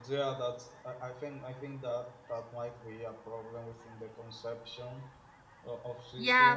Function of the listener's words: taking over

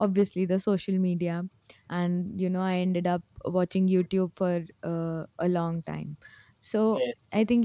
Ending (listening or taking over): listening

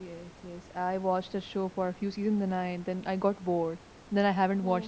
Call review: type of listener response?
taking over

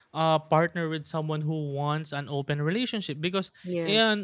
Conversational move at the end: listening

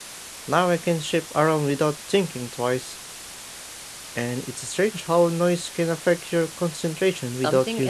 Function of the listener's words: taking over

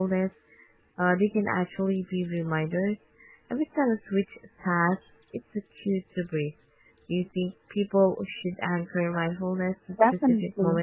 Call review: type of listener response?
taking over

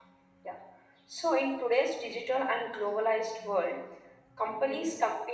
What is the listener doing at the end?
listening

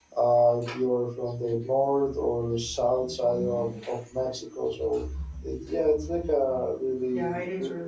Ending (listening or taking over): taking over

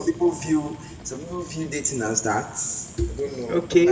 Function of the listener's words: taking over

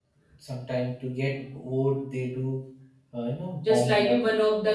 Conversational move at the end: taking over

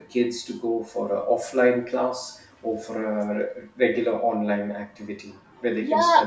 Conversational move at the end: taking over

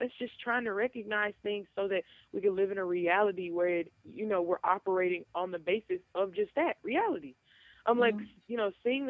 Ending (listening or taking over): listening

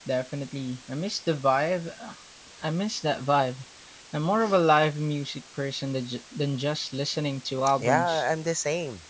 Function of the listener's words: taking over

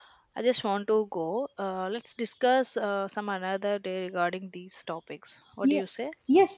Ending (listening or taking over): taking over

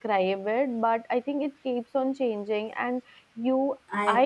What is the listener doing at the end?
listening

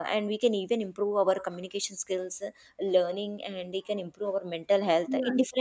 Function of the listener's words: listening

